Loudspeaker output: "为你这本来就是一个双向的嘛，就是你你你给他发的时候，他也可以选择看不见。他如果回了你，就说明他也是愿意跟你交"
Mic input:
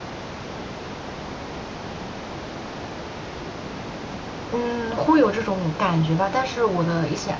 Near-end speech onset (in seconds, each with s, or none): 4.5 s